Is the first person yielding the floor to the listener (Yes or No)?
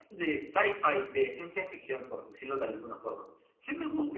No